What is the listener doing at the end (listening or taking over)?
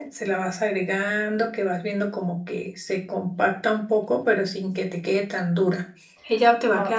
taking over